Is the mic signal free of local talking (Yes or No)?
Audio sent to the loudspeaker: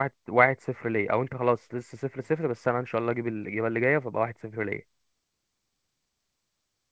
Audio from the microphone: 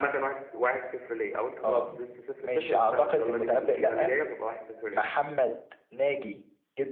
No